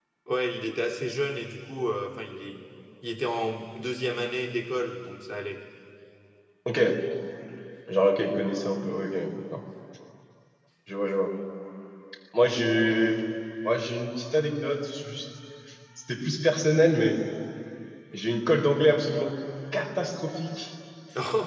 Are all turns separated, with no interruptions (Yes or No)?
Yes